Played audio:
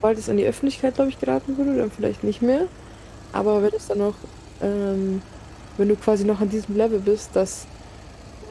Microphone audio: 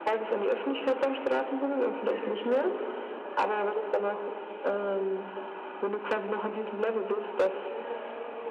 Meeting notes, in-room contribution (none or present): present